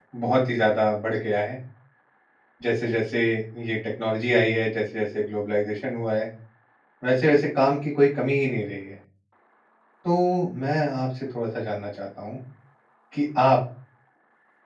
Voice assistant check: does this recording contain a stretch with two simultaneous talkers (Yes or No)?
No